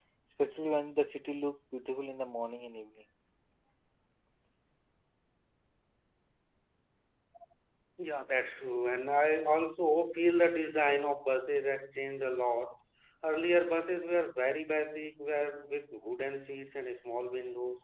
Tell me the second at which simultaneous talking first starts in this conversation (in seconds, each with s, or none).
none